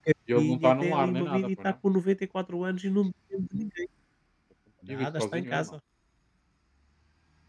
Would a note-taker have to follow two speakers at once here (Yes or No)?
Yes